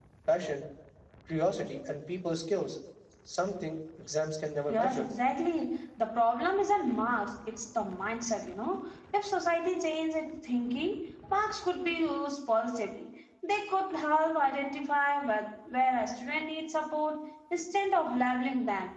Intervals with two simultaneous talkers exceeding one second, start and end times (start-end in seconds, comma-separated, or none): none